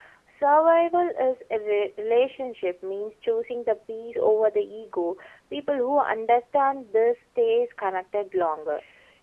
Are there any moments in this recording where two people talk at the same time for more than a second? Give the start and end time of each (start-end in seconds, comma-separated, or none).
none